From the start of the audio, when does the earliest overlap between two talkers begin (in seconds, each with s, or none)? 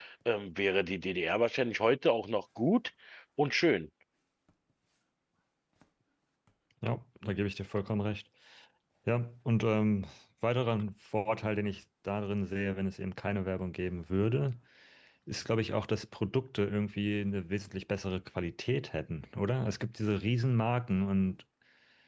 none